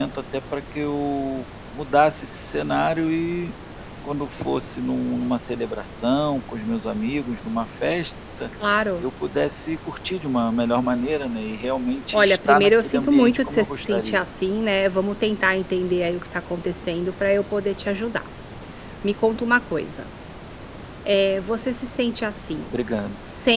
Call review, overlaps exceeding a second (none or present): present